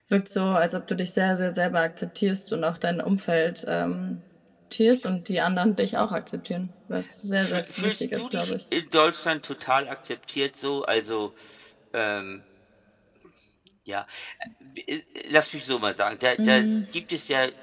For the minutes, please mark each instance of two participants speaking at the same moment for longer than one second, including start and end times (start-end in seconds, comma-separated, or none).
7.3-8.5